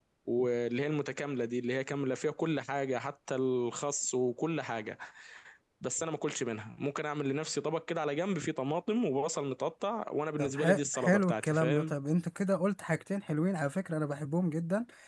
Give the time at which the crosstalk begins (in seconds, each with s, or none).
10.4 s